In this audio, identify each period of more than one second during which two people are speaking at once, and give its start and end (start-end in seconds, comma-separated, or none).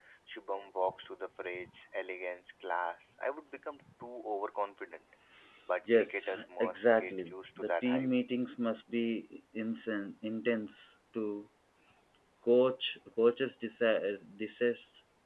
5.9-8.1